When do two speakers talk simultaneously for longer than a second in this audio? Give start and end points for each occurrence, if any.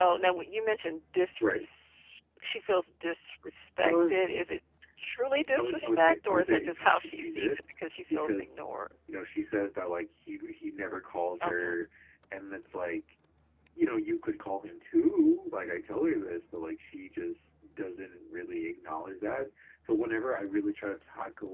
5.6-7.6

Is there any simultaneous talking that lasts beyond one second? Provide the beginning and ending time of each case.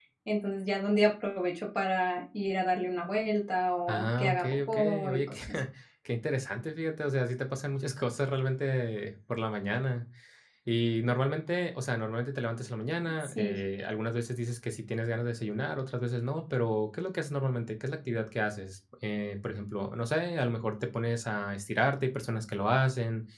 3.9-5.4

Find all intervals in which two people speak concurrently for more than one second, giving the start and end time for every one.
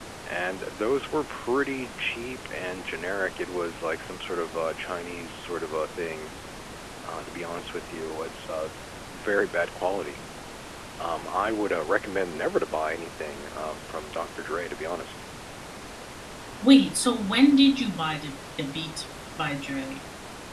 none

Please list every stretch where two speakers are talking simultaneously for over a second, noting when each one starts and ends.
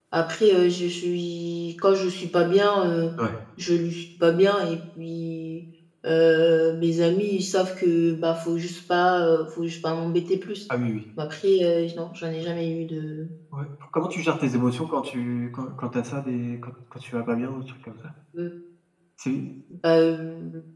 none

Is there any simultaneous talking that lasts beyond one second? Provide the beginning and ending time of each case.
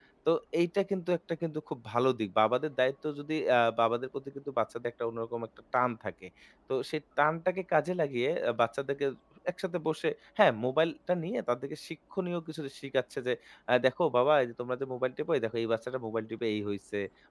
none

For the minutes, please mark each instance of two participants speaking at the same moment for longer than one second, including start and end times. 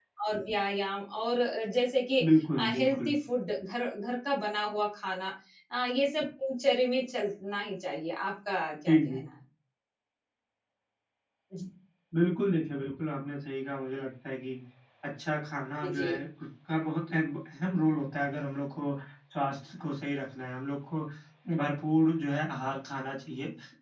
none

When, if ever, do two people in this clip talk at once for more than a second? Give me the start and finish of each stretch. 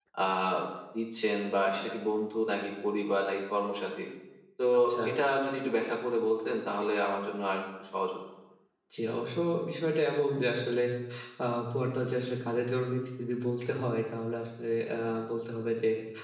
none

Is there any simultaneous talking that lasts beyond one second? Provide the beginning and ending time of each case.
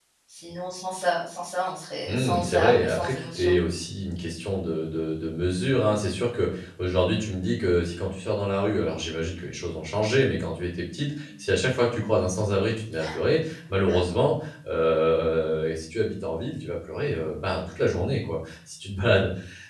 2.1-3.6

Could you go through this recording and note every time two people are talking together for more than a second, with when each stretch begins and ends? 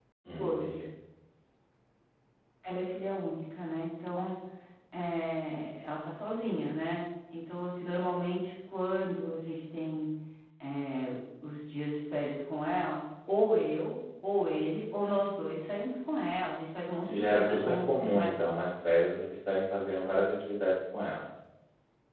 17.1-18.3

